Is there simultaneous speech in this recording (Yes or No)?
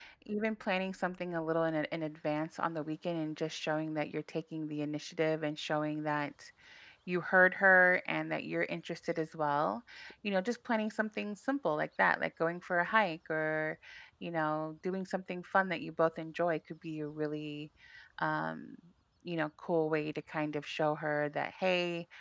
No